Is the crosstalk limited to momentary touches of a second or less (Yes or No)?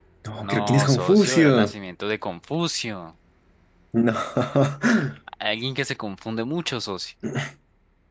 No